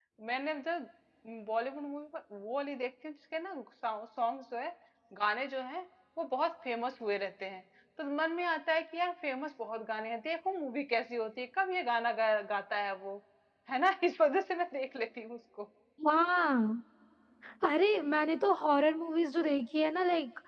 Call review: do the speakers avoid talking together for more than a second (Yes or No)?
Yes